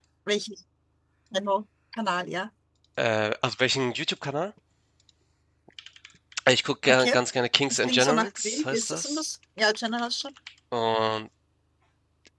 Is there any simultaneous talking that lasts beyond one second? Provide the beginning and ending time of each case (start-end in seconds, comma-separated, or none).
7.7-9.3